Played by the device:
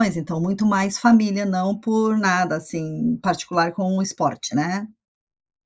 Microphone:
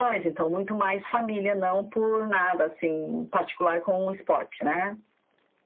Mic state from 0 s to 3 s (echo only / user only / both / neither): echo only